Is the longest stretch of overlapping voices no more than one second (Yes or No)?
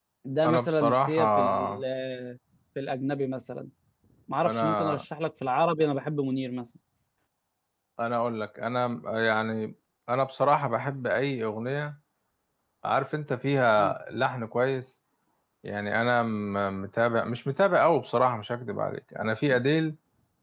No